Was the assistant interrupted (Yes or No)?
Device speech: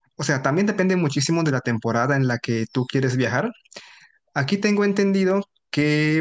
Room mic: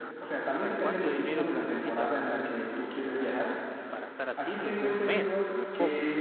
Yes